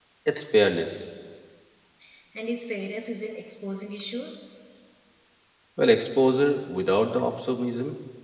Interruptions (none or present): none